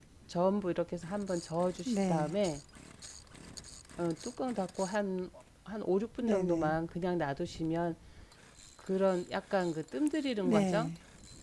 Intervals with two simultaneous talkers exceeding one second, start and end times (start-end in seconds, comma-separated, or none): none